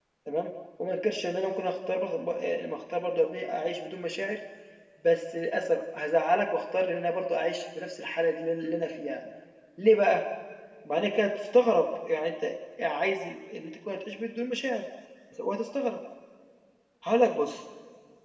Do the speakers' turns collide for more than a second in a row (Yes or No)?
No